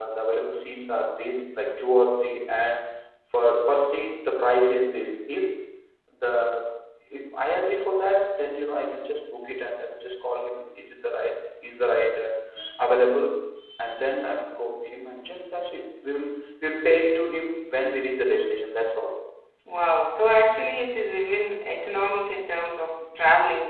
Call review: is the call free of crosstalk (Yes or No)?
Yes